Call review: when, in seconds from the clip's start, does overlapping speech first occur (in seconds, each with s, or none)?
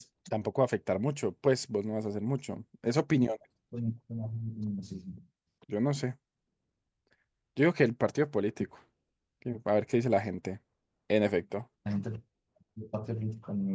none